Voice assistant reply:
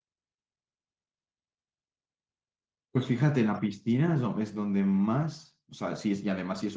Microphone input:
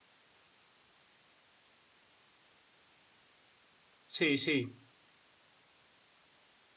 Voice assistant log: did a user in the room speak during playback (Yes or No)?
Yes